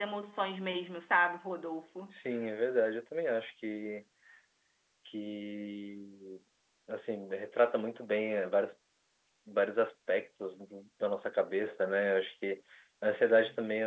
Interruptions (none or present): none